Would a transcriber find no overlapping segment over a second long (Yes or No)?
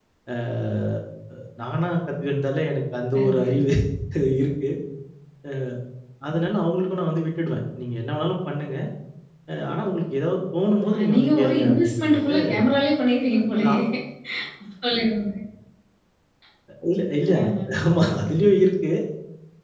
No